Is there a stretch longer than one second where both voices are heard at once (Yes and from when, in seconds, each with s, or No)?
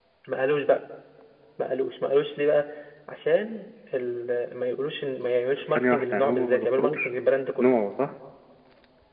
Yes, from 5.8 s